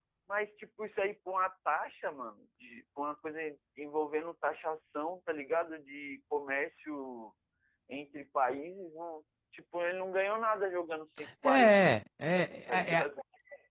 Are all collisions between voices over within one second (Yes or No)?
Yes